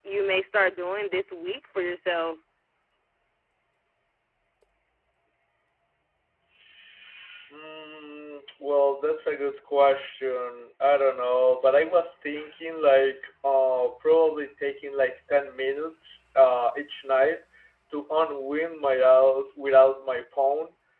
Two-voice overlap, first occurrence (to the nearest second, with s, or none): none